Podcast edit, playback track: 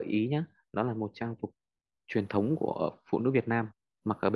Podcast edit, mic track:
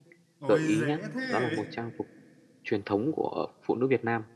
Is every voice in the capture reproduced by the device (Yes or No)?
No